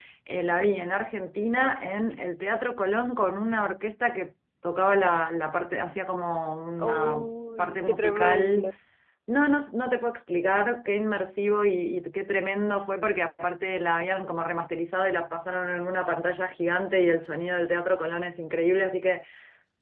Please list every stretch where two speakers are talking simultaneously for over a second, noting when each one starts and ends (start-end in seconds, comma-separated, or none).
6.8-8.7